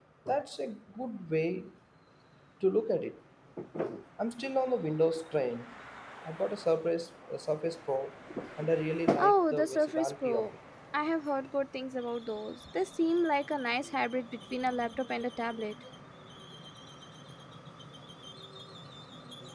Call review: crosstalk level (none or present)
present